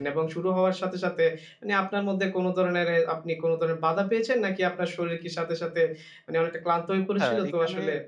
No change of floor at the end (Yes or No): No